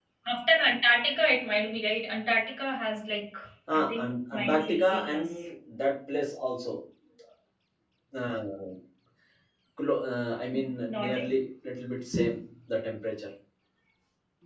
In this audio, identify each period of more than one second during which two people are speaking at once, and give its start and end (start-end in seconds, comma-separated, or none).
3.7-5.3